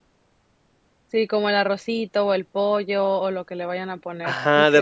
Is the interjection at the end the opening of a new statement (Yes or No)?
Yes